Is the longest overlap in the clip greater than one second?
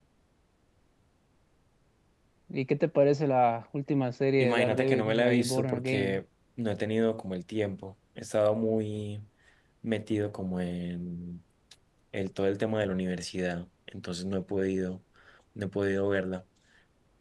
Yes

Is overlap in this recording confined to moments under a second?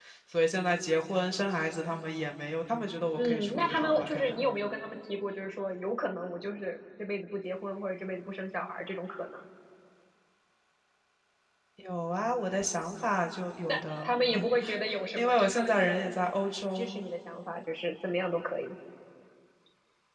No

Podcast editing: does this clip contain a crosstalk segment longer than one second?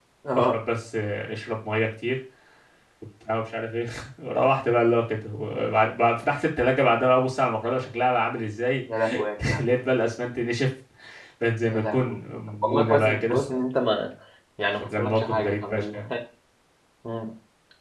Yes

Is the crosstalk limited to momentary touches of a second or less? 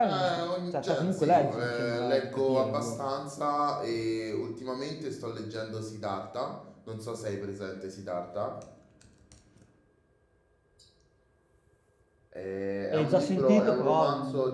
No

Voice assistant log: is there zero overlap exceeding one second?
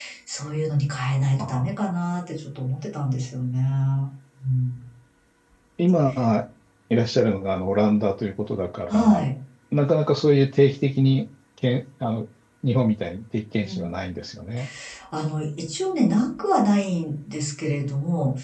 Yes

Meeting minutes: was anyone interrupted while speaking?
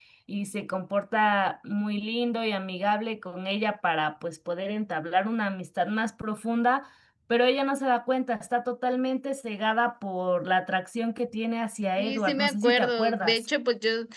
Yes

